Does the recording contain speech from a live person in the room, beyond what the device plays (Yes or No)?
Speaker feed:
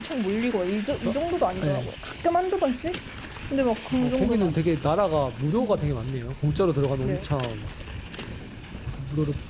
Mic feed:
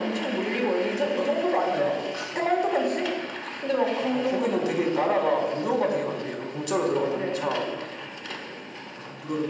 No